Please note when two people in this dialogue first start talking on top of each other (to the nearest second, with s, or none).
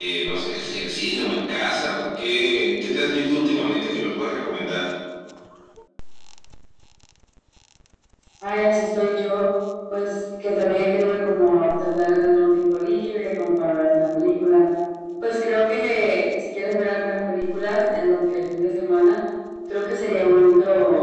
none